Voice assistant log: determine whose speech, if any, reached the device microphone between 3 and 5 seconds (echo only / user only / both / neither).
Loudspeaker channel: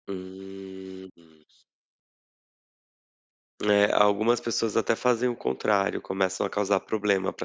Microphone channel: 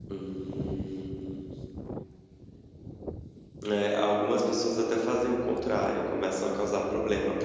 echo only